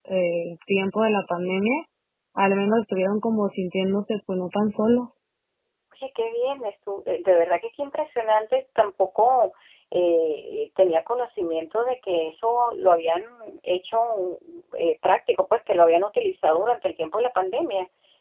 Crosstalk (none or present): none